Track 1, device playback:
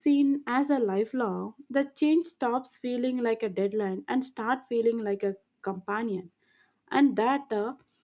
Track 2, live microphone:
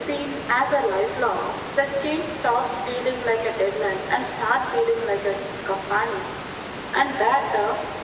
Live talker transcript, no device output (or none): none